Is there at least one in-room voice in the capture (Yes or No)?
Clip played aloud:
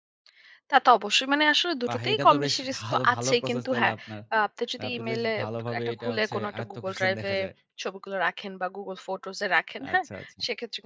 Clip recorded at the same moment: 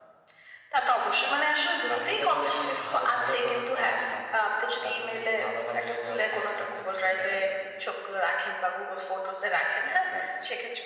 No